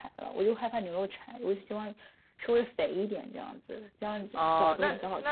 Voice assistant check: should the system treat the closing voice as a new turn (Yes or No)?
Yes